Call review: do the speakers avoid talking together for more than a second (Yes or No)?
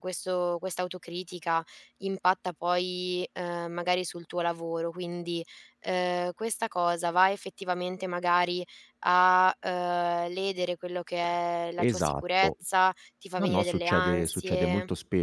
No